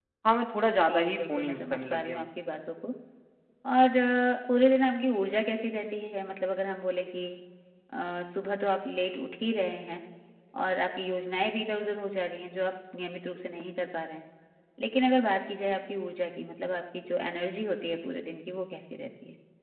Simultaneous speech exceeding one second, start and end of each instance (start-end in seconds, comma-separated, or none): 0.7-2.3